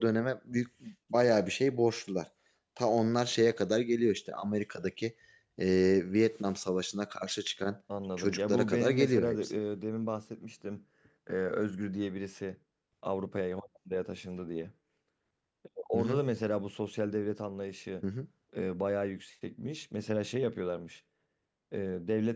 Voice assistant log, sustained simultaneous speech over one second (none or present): present